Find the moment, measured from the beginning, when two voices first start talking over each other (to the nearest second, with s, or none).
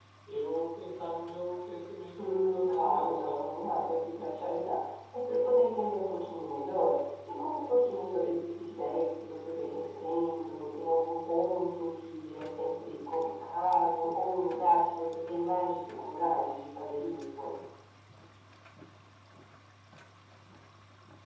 2 s